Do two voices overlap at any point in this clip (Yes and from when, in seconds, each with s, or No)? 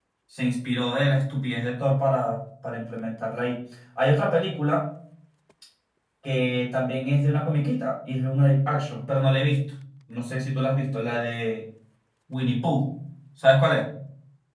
No